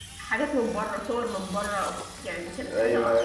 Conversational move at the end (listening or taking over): taking over